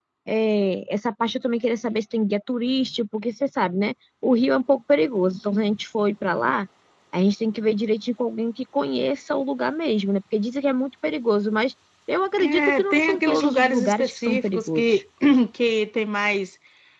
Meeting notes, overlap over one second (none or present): present